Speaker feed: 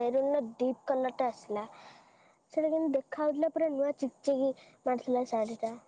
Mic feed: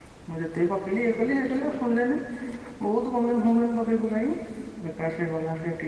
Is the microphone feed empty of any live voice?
No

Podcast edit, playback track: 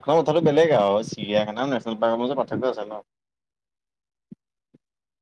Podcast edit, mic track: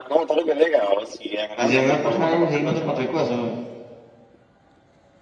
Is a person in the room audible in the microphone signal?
Yes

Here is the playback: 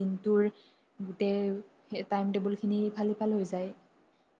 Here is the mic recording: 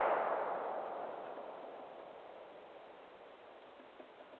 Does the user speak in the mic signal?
No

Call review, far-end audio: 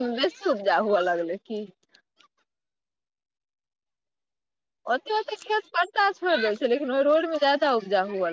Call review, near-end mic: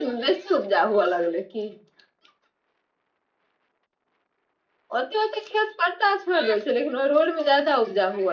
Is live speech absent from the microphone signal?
Yes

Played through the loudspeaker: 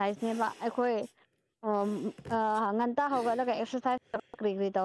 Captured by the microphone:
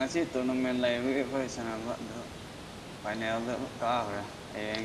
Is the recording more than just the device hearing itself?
Yes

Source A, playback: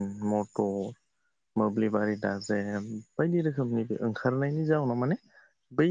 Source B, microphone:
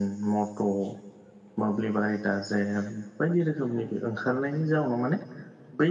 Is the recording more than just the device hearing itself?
No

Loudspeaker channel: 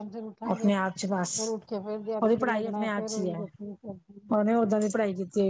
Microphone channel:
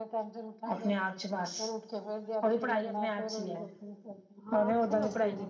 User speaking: Yes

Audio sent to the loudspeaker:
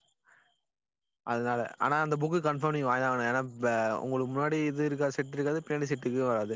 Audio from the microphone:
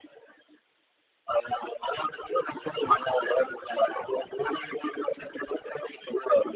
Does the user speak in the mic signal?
No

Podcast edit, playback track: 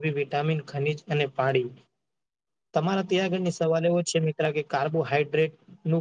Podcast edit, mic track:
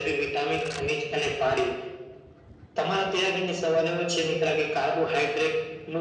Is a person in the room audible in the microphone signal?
No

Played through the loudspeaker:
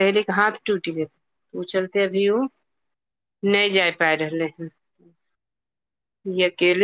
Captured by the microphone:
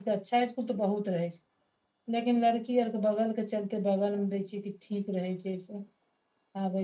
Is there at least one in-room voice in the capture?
Yes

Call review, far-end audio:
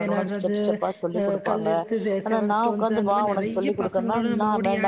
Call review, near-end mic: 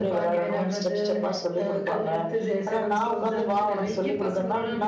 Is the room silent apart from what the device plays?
Yes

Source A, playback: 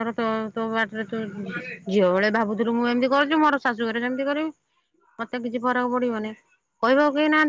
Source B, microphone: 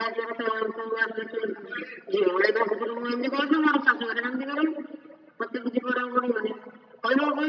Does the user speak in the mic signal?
No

